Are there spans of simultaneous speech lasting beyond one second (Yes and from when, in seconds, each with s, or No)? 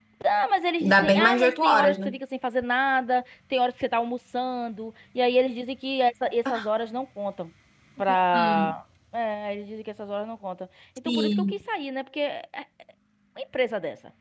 Yes, from 0.8 s